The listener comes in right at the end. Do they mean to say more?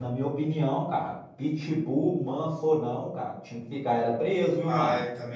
Yes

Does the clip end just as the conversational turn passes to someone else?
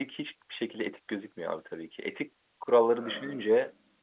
No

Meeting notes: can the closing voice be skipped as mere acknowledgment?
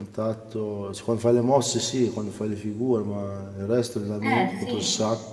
Yes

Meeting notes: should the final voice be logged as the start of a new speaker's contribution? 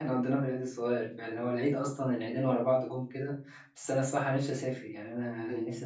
Yes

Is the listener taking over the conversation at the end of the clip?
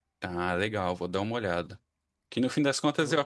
No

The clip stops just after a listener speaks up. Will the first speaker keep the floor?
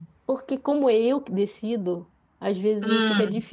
Yes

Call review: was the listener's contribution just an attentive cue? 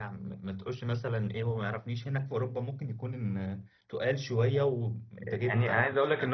No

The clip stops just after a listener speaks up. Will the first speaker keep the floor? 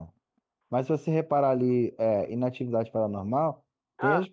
Yes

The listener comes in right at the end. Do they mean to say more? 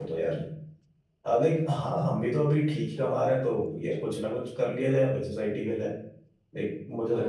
Yes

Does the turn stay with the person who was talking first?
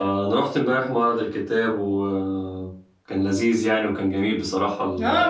No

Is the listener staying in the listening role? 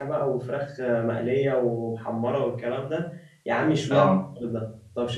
Yes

